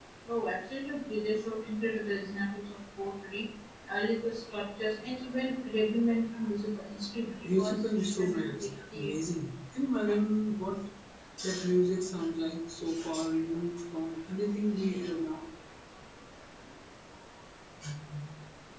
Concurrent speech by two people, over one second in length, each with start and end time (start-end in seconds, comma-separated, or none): 7.4-9.3